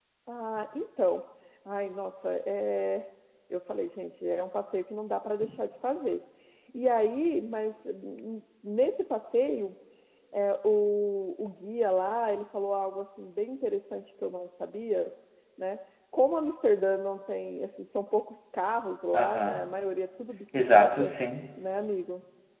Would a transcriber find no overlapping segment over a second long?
Yes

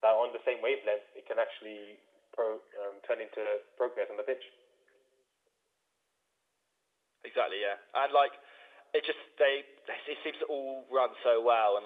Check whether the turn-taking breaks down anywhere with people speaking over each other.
No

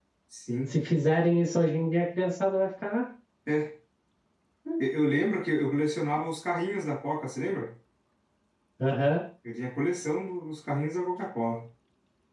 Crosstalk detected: No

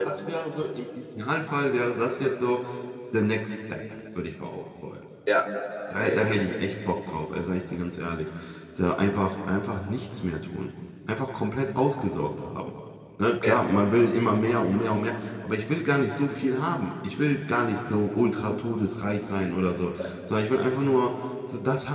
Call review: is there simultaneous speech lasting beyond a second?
No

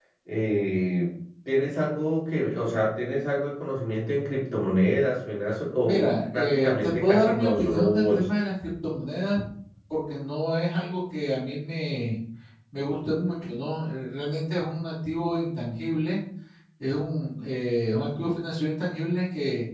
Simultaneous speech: Yes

